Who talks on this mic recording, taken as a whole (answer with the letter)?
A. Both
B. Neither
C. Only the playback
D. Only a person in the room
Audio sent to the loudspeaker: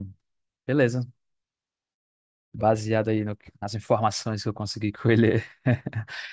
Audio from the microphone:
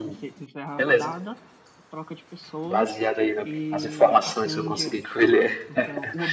A